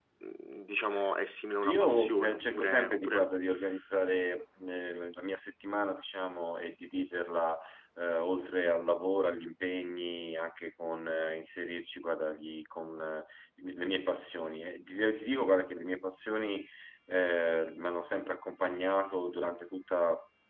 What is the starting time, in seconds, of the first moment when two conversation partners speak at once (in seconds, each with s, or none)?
1.6 s